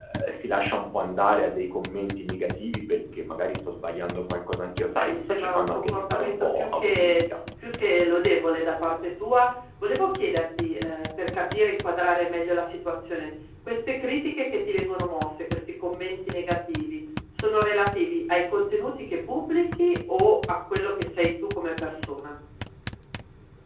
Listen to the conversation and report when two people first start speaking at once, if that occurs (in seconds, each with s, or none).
5.0 s